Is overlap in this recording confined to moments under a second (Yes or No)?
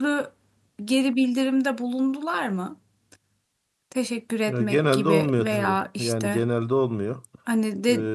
No